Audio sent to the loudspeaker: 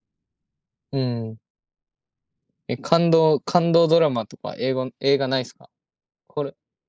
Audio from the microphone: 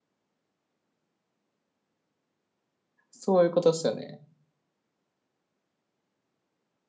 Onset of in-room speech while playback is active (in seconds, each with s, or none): 3.1 s